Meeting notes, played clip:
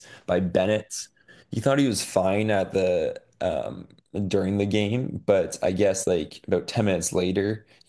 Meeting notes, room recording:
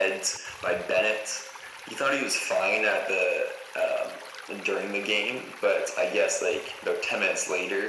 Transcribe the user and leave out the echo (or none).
none